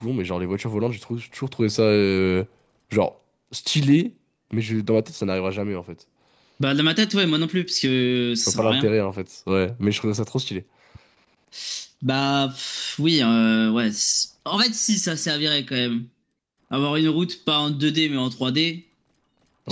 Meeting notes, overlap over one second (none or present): none